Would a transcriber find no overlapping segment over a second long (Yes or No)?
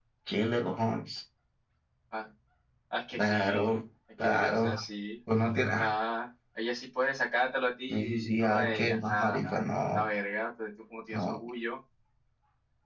No